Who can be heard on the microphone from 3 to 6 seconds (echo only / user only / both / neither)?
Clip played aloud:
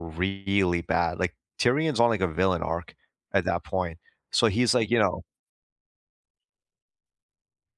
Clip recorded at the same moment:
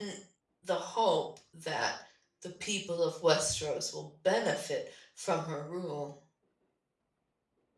user only